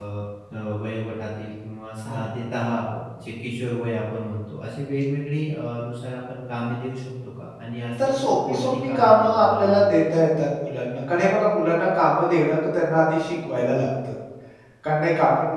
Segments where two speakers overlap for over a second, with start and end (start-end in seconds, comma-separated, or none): 8.0-9.9